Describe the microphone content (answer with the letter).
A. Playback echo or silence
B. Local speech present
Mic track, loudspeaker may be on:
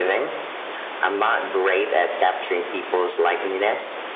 A